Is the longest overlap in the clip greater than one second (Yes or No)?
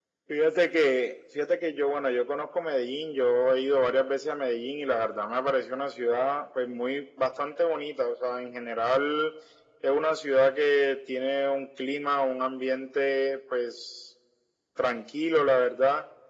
No